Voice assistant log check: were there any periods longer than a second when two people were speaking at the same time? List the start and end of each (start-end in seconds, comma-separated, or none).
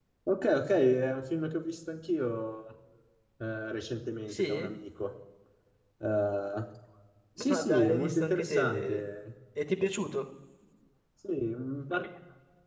7.4-9.0